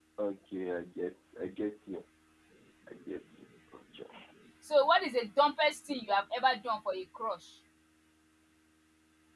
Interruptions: none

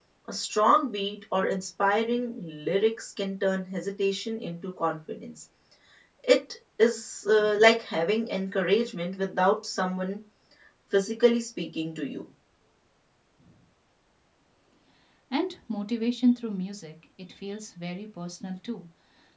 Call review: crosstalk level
none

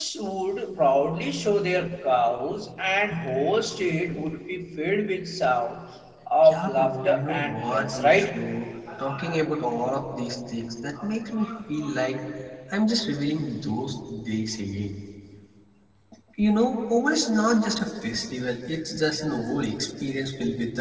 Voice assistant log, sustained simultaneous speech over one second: present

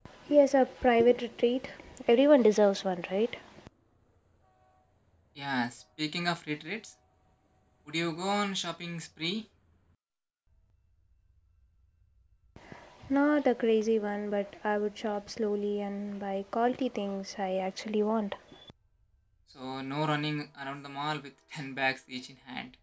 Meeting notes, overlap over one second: none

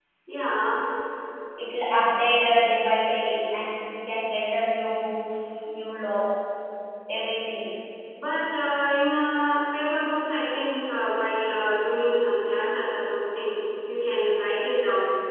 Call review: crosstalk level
none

